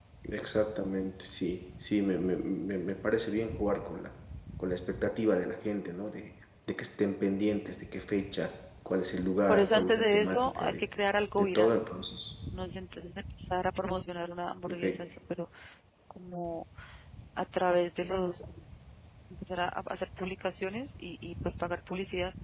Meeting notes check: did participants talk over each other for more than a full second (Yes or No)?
Yes